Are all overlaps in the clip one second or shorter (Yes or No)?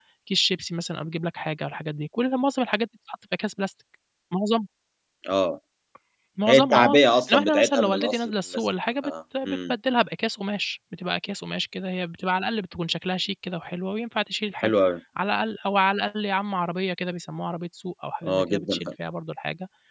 No